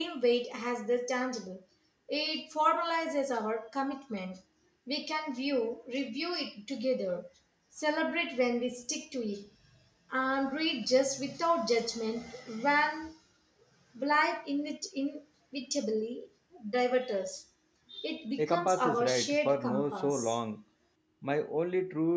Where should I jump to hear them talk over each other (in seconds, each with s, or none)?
18.4 s